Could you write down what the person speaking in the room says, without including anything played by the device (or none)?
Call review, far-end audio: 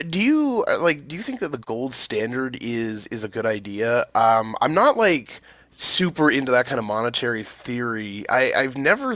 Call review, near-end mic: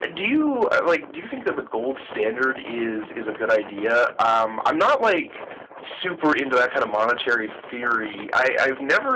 none